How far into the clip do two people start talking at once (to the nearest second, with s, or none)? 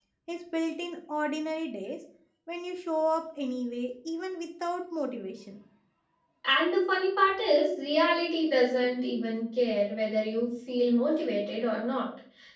none